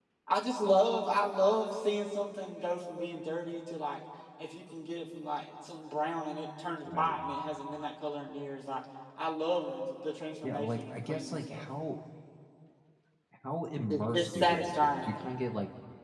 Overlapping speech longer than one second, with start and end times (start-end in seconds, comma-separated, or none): 10.4-11.7, 13.9-15.1